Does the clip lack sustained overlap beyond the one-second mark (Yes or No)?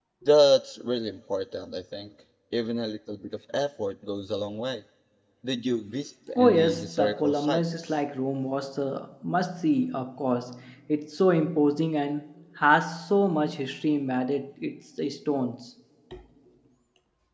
No